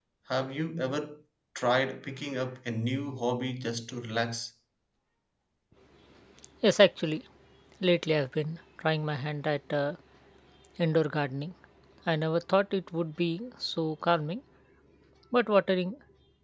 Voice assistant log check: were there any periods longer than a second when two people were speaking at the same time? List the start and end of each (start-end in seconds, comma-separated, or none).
none